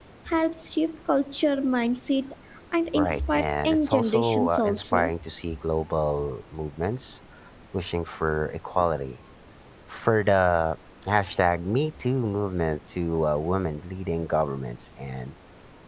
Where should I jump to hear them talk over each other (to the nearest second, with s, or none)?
3 s